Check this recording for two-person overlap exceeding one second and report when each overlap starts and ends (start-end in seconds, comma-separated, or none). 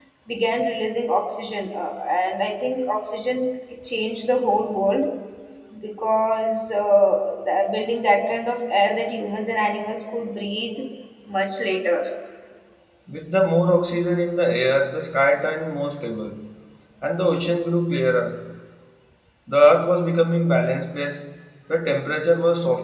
none